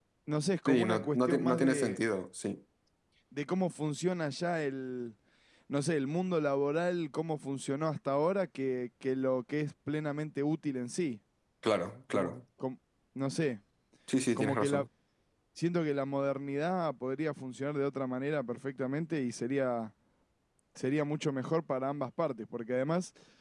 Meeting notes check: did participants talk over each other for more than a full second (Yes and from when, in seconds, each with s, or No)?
Yes, from 0.7 s